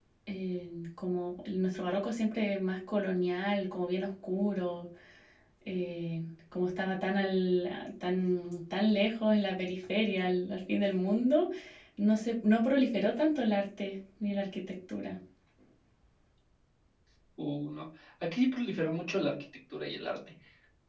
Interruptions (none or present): none